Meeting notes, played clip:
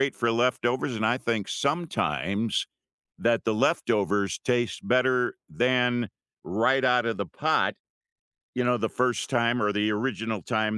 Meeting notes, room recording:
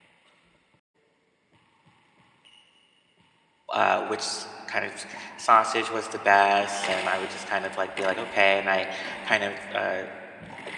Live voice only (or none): uh, which kind of sausage was the best, and I would just kind of like be like okay, and I kind of uh,